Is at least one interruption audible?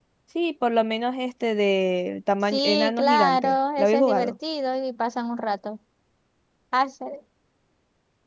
Yes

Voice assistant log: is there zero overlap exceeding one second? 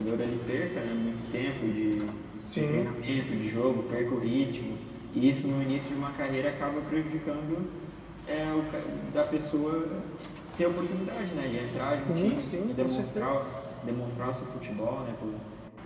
No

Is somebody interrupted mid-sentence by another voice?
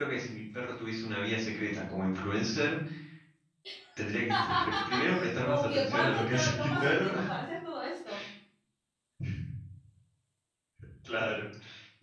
Yes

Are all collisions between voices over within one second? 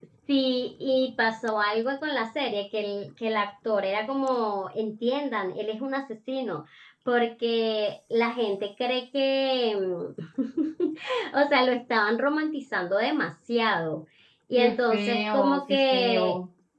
No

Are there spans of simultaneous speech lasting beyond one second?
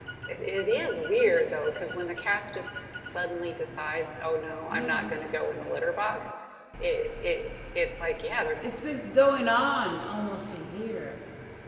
No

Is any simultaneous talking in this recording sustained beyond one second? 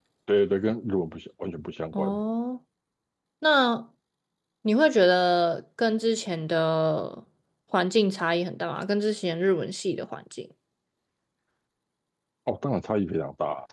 No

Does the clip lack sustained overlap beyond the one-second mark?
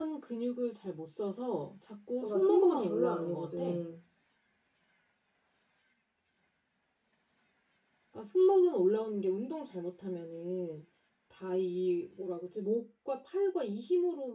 No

